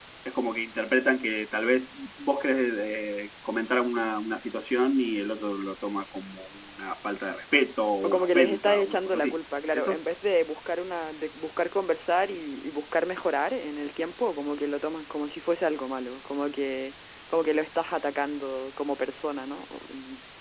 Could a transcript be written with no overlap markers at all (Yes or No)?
No